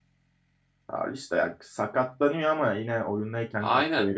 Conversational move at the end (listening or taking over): taking over